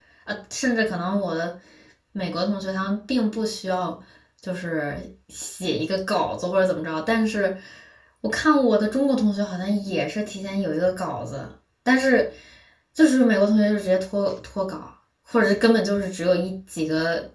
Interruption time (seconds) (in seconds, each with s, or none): none